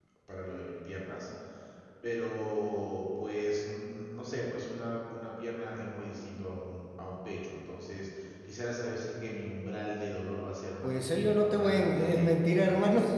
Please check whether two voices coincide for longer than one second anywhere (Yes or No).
Yes